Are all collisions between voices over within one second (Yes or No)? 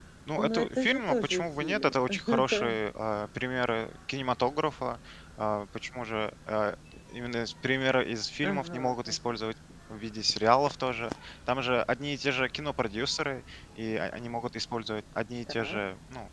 No